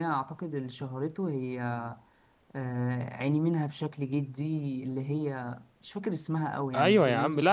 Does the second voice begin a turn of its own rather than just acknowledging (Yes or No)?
Yes